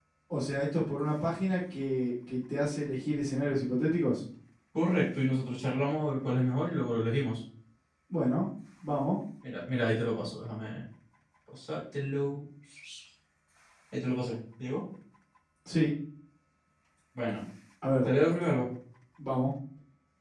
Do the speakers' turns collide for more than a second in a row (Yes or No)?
No